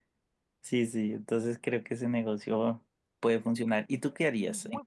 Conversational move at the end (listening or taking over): taking over